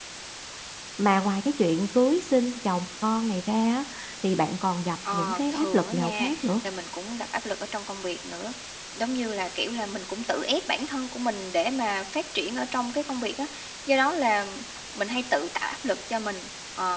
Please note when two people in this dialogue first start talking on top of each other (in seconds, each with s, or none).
5.1 s